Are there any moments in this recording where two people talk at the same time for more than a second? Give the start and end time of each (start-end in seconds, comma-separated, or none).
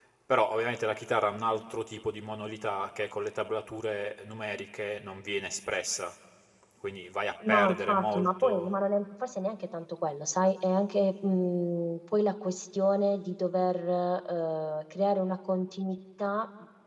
7.5-8.7